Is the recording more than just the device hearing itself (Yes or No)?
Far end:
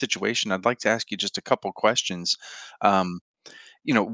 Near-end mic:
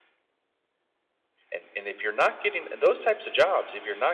Yes